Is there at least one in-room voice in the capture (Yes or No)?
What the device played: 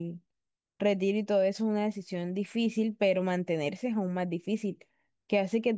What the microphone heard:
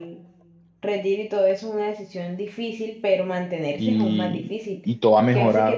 Yes